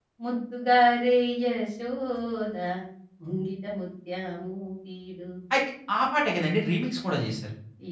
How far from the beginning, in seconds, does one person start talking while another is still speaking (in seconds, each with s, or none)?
none